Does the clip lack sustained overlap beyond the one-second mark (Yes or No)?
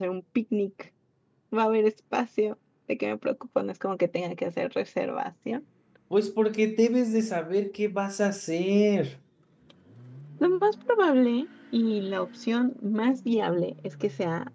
Yes